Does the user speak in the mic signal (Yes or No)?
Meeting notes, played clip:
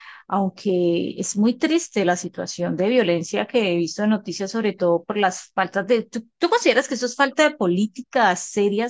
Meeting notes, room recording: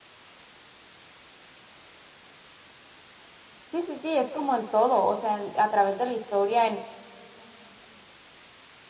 Yes